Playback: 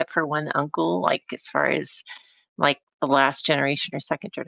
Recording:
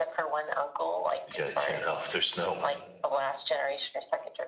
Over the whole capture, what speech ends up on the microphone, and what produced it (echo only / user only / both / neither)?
both